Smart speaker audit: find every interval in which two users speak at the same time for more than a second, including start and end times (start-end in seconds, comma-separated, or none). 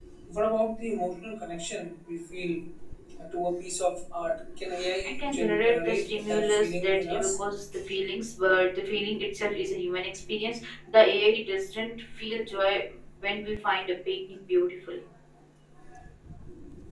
5.1-7.4